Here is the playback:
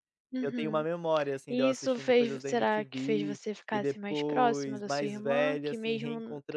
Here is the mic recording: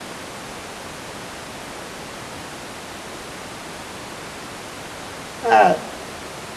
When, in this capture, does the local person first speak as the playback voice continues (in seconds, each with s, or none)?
5.4 s